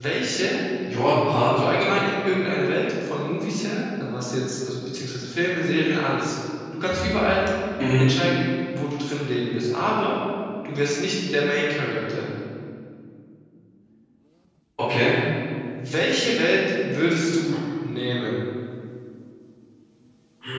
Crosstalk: none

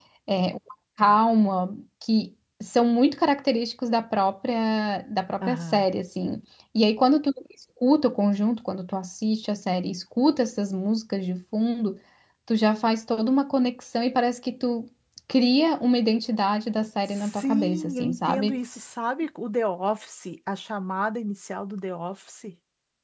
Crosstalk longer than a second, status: present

